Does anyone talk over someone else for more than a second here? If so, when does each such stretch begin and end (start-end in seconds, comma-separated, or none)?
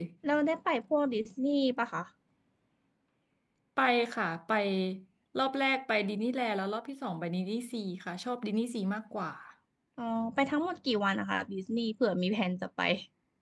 none